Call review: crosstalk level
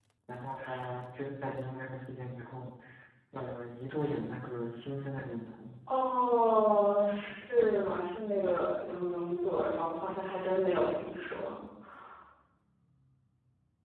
none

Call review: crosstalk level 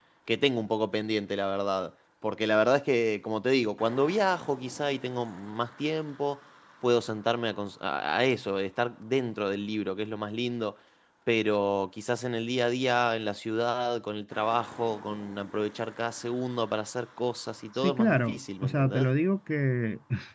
present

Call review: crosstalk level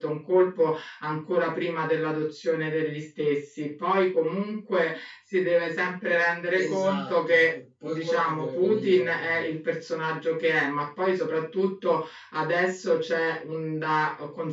present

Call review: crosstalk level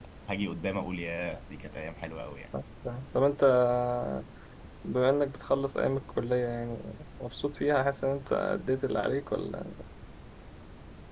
none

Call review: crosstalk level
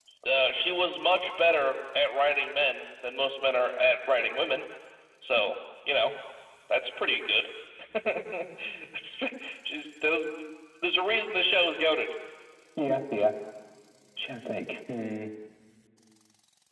none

